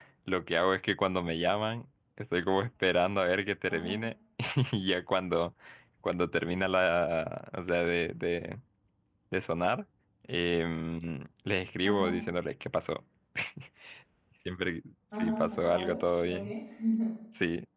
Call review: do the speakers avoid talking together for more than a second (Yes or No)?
No